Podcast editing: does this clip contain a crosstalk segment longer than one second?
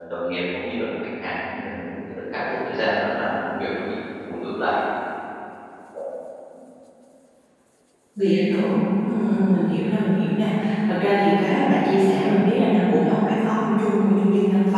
No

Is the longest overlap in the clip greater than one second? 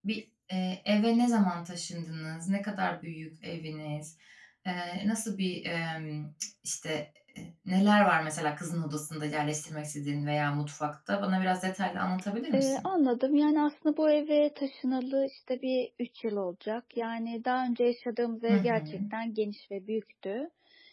No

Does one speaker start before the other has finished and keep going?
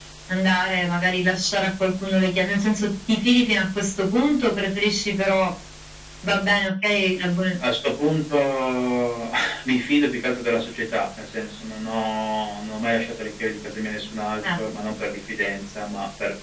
No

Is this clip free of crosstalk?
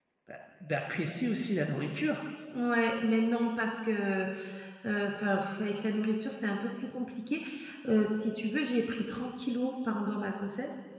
Yes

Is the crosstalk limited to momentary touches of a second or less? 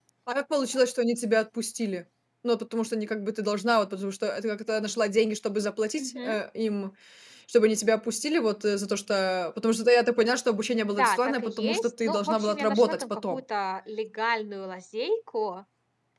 No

